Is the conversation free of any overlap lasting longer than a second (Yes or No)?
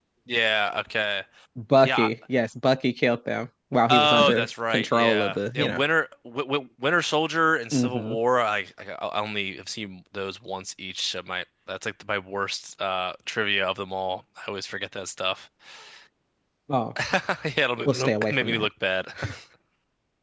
No